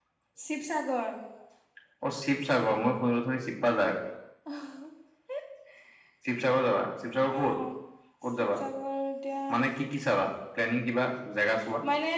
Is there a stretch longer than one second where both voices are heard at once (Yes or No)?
No